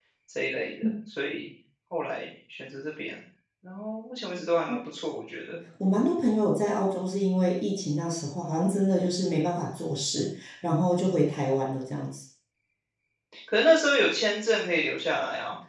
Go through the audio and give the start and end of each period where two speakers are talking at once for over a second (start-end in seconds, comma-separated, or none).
none